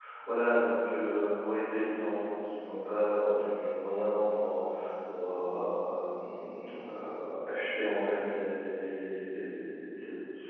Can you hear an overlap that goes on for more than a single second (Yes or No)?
No